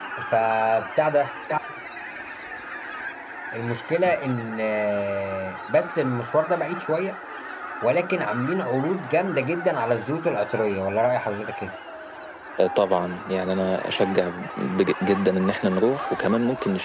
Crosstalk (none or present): none